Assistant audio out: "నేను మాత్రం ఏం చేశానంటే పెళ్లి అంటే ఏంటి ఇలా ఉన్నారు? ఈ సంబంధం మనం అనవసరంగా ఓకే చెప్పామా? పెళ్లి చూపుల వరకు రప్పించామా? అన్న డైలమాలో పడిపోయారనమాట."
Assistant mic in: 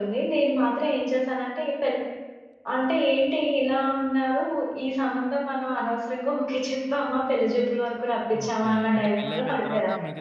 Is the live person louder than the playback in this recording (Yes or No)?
No